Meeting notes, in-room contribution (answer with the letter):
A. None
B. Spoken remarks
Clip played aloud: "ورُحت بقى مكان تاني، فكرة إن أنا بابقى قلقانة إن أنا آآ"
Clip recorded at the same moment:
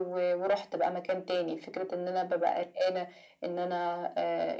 A